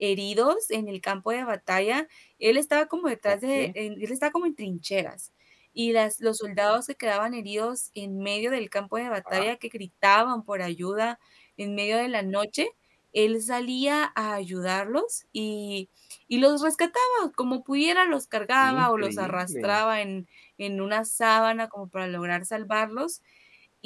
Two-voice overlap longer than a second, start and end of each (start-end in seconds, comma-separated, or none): 18.6-19.8